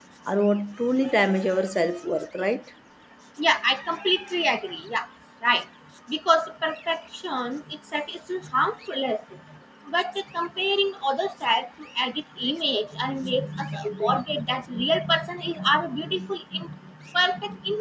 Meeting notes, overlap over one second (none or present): none